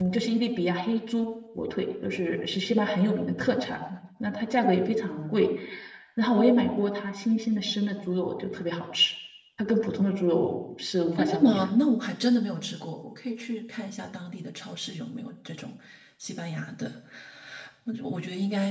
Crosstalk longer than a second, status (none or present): none